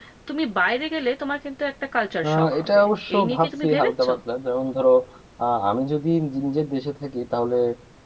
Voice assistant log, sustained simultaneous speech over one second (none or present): present